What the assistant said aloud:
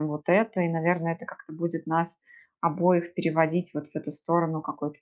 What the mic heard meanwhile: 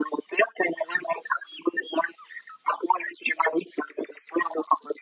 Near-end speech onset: none

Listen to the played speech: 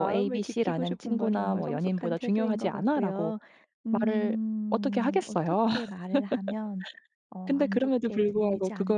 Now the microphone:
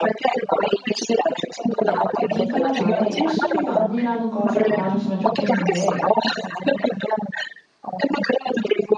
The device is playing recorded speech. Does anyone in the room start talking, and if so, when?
2 s

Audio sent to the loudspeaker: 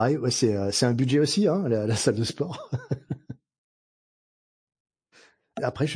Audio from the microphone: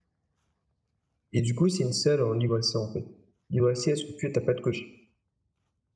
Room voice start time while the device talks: 1 s

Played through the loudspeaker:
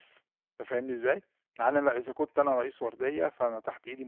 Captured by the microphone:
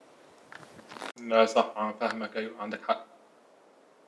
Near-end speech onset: 1 s

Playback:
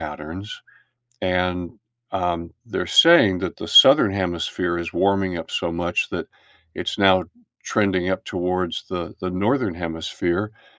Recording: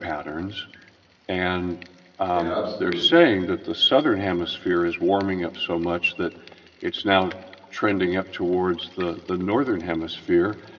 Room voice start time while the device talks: 2 s

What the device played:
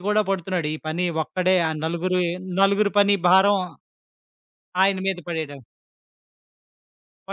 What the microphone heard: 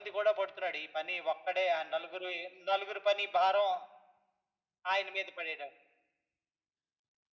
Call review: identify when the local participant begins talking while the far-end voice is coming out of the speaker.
none

